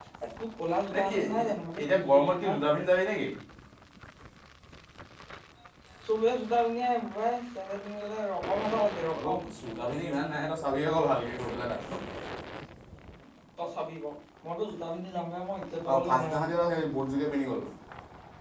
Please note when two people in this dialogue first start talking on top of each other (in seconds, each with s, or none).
1.0 s